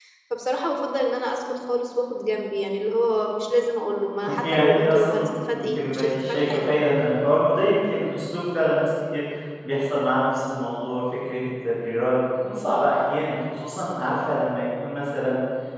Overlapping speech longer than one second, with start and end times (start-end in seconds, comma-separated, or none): 4.4-6.5